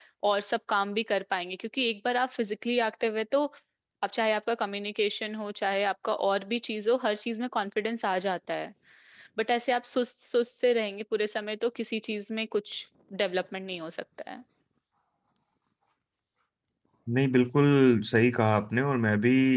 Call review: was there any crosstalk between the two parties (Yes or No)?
No